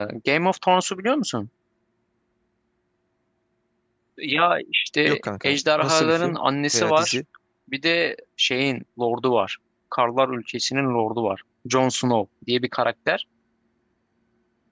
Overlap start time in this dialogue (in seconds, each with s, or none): 5.1 s